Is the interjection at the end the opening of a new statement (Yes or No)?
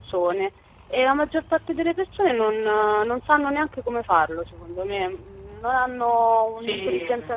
Yes